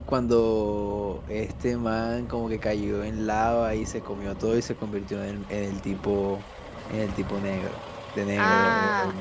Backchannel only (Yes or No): No